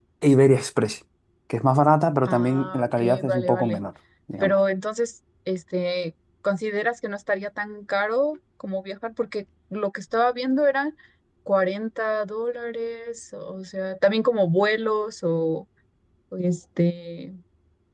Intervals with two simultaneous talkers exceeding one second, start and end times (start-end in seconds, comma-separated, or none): 2.2-3.8